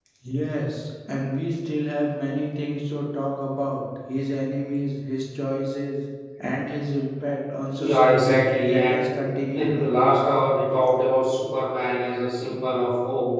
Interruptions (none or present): present